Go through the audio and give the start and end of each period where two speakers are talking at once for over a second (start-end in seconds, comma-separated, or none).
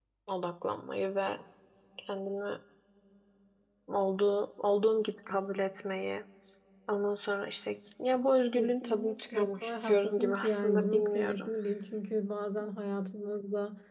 8.6-11.5